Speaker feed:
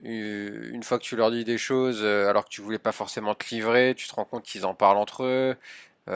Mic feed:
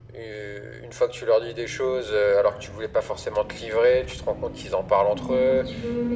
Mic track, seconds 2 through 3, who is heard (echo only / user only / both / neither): echo only